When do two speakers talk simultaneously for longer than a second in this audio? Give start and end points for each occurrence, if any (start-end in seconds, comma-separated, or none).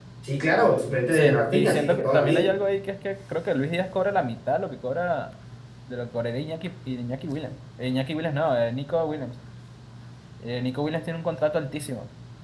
1.1-2.6